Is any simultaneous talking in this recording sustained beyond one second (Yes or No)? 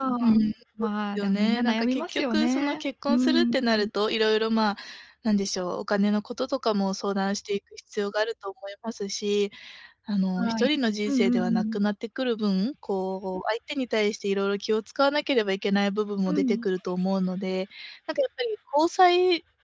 Yes